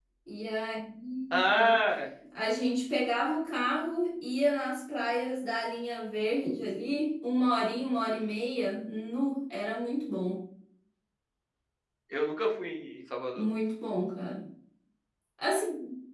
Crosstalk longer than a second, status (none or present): none